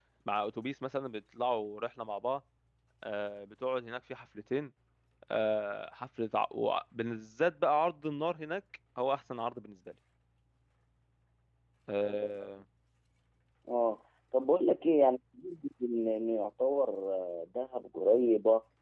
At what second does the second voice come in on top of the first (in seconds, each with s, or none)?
none